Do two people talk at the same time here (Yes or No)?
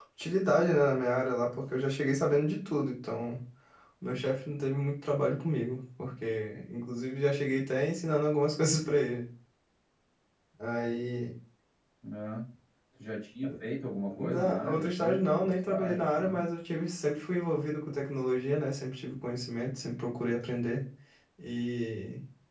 Yes